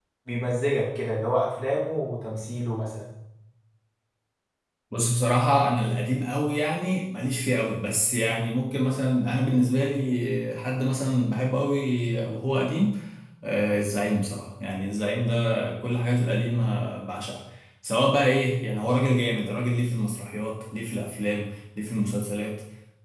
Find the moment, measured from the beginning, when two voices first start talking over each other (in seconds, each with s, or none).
none